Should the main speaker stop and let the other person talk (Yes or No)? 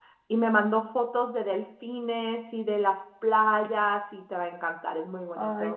Yes